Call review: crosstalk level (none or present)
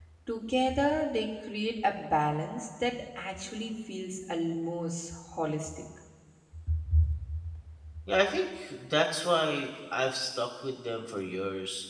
none